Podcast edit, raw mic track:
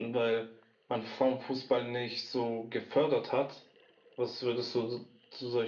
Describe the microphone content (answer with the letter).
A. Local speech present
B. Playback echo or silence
B